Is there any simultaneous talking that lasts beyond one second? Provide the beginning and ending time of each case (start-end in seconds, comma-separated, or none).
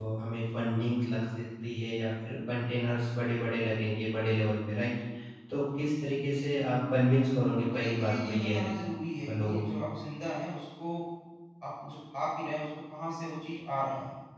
7.5-8.7